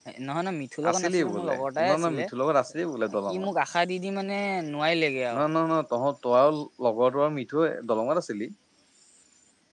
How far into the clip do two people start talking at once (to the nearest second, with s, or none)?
1 s